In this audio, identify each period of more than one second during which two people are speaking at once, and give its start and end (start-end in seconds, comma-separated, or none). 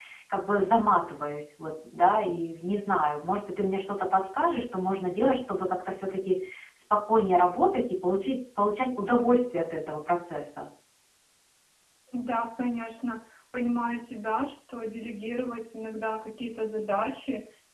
none